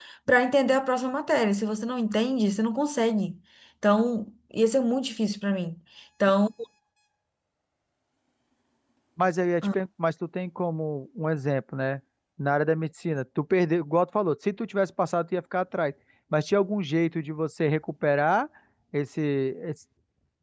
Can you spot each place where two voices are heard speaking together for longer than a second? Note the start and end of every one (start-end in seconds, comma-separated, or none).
none